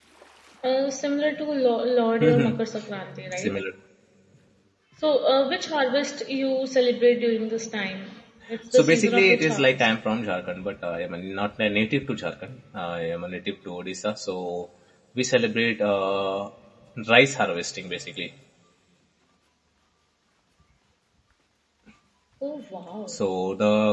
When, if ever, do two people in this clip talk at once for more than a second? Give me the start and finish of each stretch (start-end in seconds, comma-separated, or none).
8.7-9.9